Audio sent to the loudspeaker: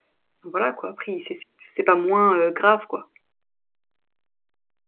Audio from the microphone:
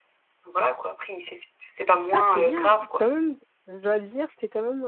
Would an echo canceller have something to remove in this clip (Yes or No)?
Yes